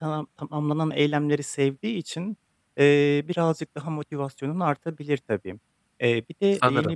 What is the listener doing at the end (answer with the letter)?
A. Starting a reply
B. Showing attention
B